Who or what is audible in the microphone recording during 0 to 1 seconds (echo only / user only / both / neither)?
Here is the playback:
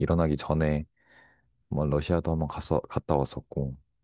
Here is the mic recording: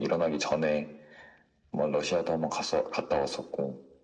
echo only